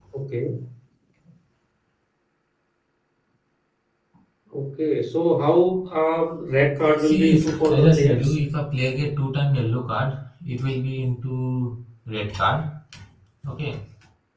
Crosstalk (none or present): present